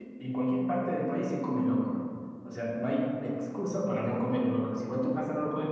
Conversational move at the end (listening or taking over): listening